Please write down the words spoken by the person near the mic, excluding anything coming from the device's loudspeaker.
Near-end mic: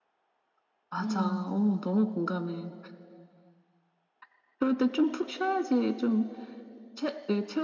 음.

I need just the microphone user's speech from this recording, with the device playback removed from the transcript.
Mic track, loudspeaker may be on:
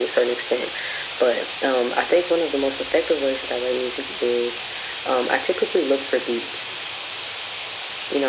none

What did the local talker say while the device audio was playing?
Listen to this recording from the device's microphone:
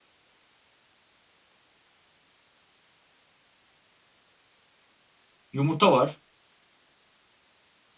yumurta var,

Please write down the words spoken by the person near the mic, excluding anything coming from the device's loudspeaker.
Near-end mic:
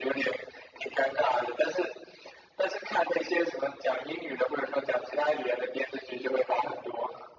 none

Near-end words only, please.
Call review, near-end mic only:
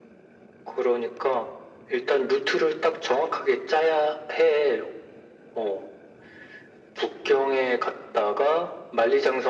none

